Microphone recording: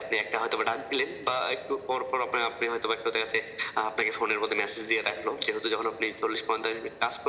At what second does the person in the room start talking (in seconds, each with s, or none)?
none